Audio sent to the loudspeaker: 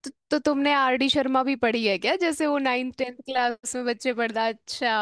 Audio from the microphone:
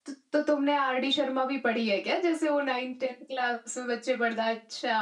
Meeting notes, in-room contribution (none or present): none